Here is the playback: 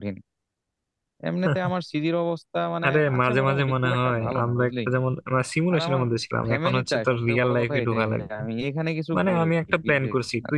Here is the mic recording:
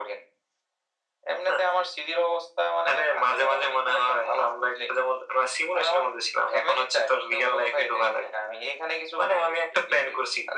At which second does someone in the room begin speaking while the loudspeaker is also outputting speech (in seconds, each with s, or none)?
none